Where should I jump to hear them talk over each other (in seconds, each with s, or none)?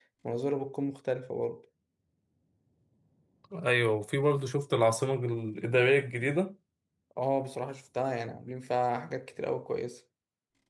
none